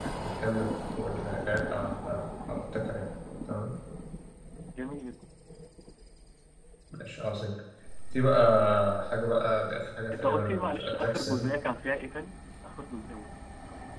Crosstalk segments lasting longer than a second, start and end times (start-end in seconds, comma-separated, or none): 10.1-11.5